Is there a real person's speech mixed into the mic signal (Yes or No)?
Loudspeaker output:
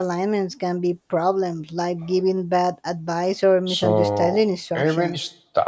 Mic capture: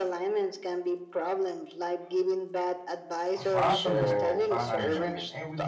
Yes